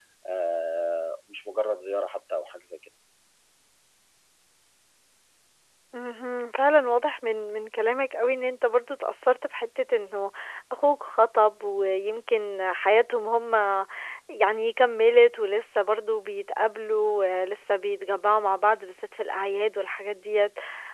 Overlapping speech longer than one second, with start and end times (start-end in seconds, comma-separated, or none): none